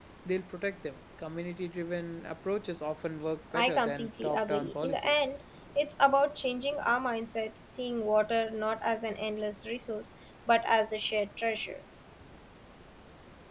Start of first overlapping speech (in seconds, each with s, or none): 3.5 s